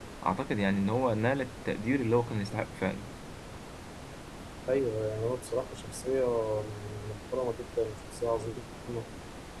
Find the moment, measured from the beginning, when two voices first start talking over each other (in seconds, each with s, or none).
none